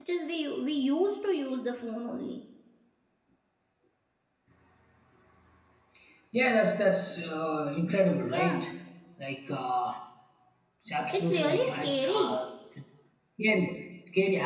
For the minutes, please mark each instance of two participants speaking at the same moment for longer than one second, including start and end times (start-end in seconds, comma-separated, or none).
11.1-12.3